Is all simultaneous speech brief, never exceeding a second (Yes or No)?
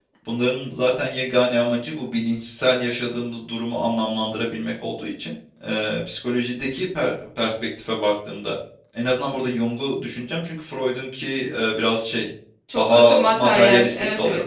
No